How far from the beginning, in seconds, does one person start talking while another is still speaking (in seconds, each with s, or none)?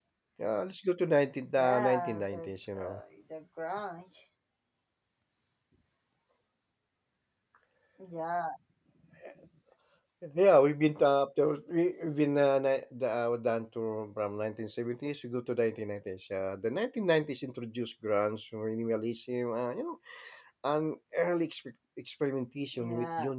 1.6 s